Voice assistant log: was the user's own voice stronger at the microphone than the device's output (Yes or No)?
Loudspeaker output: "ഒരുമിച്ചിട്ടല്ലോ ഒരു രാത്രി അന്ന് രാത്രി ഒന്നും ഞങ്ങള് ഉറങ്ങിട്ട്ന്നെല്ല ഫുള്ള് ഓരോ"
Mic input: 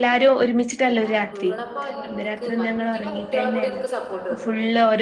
No